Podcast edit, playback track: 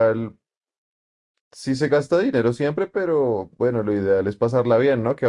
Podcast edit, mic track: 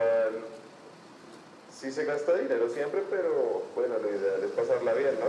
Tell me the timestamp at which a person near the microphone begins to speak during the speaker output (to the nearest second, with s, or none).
none